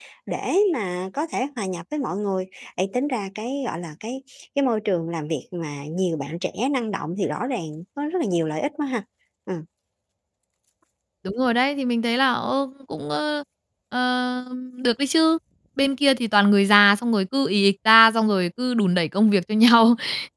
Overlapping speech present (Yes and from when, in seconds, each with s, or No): No